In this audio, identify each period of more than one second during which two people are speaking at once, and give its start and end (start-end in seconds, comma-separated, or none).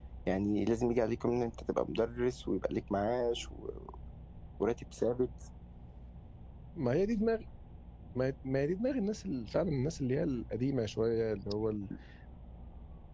none